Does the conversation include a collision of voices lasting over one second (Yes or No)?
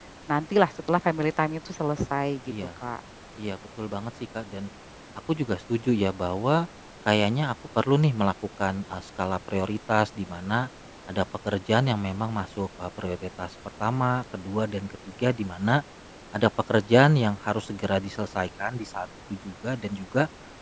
No